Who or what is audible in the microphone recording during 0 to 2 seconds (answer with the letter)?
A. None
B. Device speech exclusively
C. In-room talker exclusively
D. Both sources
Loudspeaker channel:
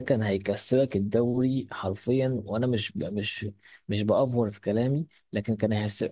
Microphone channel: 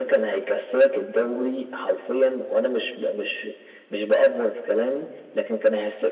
B